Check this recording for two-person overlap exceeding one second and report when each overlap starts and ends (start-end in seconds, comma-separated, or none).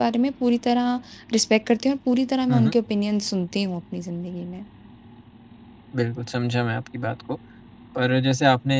none